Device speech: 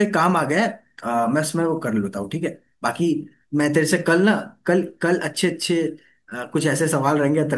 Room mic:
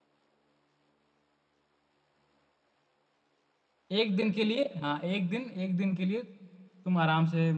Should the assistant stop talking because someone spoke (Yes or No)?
Yes